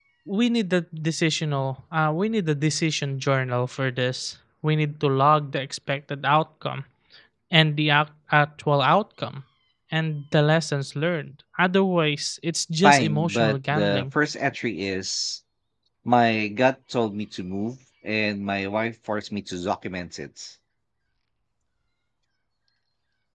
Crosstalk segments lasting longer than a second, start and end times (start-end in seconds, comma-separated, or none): 12.8-14.0